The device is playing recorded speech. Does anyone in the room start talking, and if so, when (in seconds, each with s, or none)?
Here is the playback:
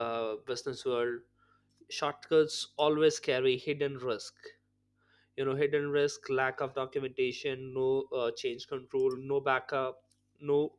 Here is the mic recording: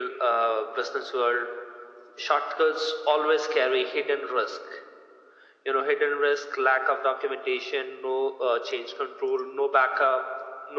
none